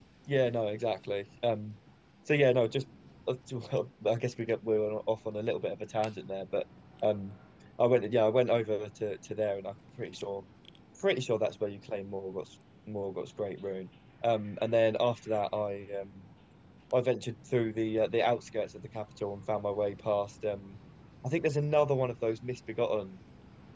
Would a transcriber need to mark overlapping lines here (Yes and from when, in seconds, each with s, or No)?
No